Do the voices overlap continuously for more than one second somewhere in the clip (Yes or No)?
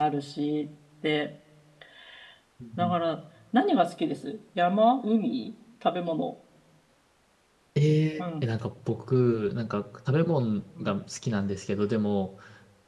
No